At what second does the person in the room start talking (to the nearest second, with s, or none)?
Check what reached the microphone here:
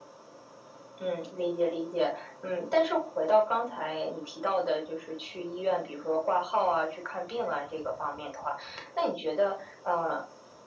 none